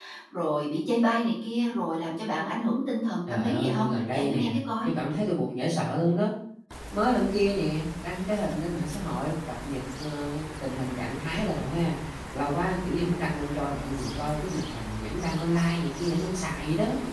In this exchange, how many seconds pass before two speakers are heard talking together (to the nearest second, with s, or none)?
3 s